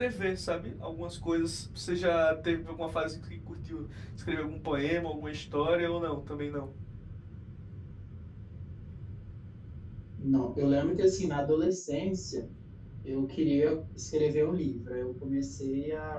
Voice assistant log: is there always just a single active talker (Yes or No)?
Yes